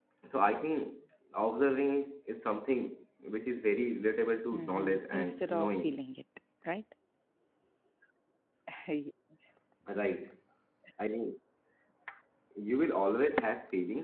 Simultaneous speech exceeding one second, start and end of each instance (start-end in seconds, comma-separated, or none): 4.5-5.8